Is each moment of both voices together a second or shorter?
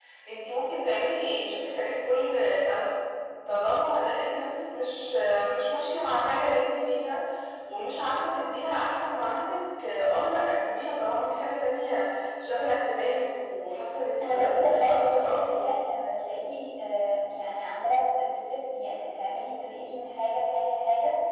No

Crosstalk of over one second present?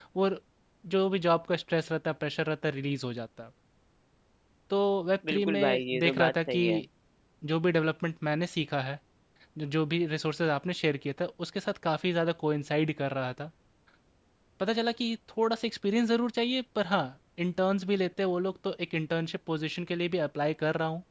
Yes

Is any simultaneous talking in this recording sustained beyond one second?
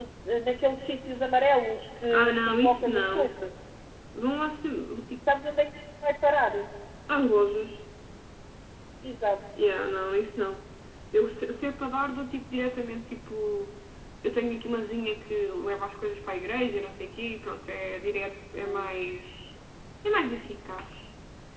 Yes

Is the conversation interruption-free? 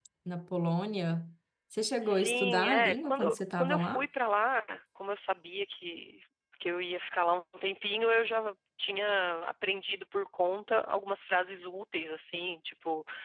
No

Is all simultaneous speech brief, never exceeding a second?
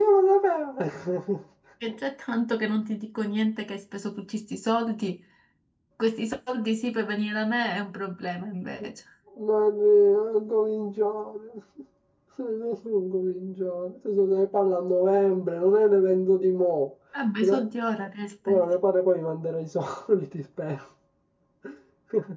Yes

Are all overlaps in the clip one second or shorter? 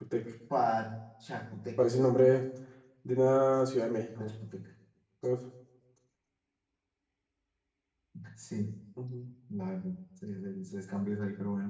Yes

